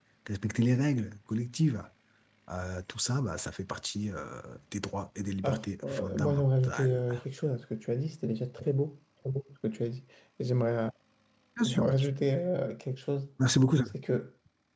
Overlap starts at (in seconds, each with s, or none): 5.4 s